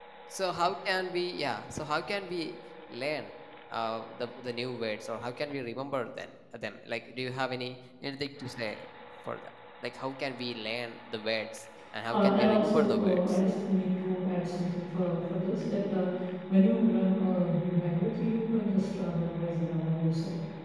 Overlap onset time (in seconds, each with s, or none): 12.1 s